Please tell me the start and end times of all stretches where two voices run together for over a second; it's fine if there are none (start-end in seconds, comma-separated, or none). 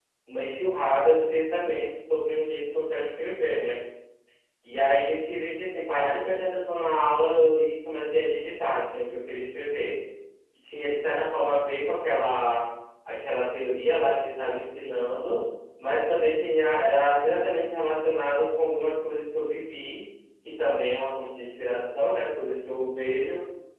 none